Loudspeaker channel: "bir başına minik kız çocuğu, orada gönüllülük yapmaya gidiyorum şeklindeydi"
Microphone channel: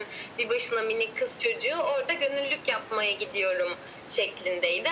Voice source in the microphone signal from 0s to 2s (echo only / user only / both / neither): echo only